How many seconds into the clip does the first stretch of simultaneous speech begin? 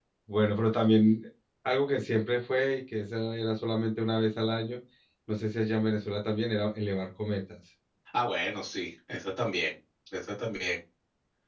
none

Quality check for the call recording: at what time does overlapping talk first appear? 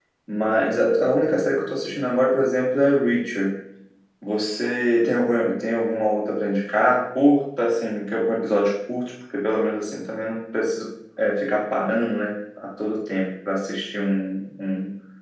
none

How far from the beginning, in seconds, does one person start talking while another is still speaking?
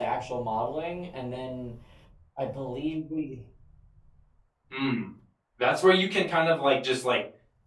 none

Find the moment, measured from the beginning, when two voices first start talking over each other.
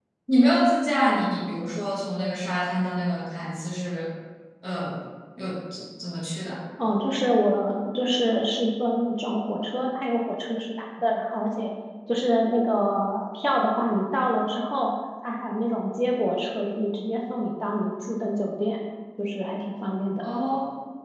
none

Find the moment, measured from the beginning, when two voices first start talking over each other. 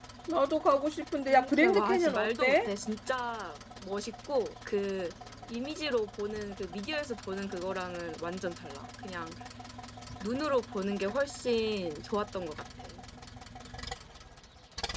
1.3 s

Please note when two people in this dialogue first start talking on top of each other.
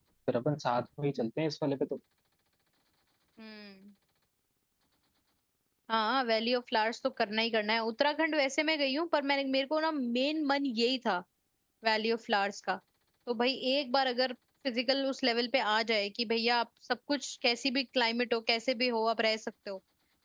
none

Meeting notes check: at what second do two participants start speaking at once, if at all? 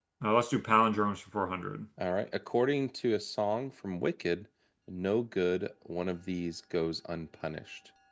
none

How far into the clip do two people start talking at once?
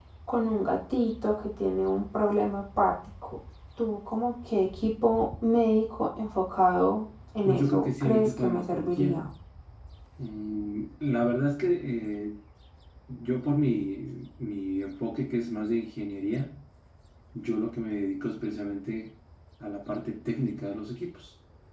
7.5 s

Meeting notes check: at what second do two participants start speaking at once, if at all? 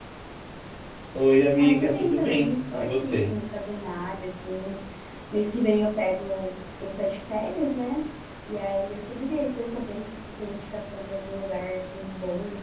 1.6 s

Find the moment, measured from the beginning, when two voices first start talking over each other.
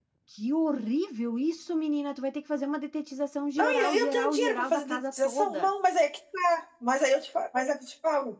3.6 s

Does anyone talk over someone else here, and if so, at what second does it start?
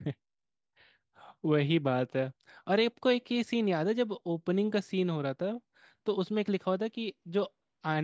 none

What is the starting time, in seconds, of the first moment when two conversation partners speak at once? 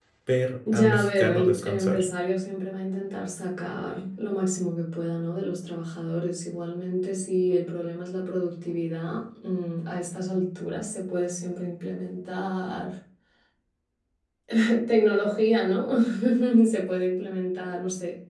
0.7 s

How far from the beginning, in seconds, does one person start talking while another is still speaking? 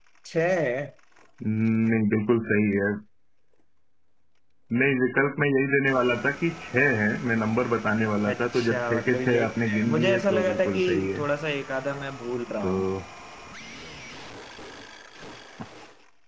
8.2 s

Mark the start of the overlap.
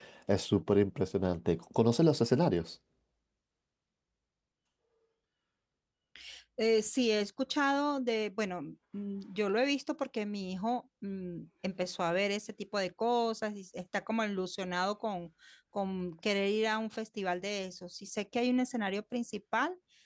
none

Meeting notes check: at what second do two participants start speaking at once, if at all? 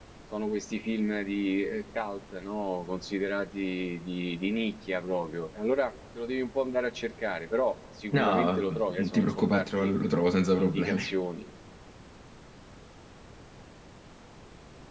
8.1 s

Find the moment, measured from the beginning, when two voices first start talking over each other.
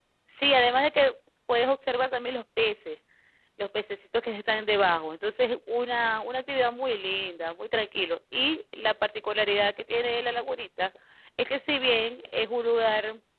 none

